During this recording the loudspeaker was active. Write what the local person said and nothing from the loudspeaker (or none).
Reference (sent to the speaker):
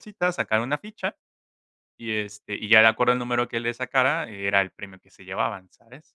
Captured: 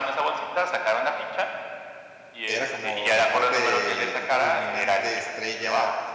Era como la parte culminante, estrella,